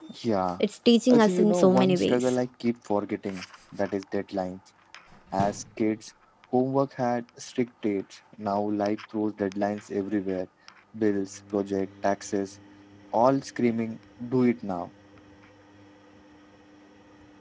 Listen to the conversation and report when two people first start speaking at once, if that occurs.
1.1 s

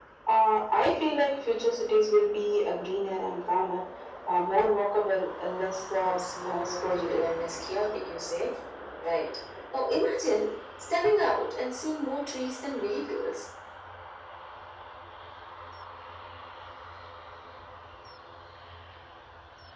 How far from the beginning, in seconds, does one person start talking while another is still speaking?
5.9 s

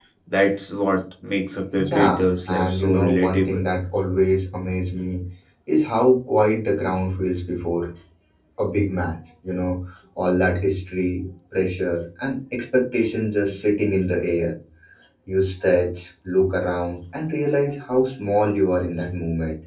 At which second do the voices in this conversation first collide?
1.8 s

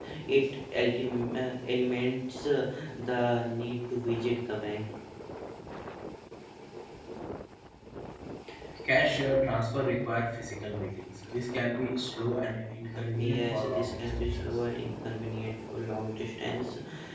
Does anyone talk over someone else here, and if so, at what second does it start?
13.2 s

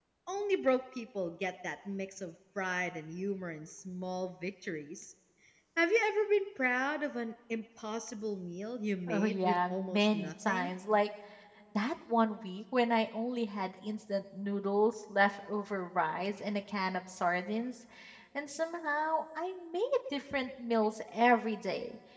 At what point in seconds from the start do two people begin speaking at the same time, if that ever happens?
9.1 s

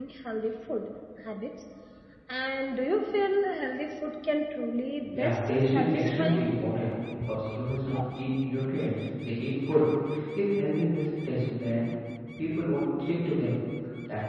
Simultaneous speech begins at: 5.0 s

